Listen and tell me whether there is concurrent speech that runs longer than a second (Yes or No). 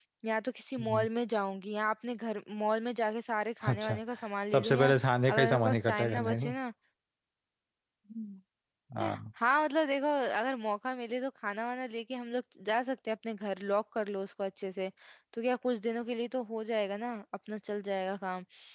Yes